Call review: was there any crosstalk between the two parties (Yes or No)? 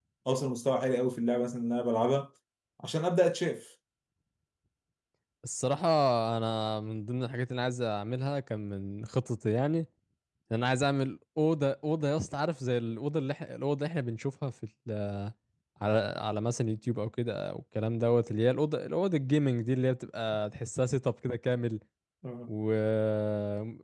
No